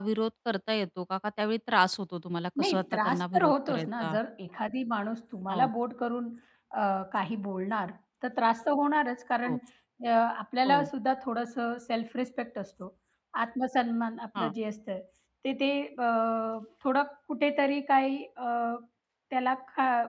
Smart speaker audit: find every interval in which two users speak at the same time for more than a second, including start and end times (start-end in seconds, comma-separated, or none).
2.6-4.1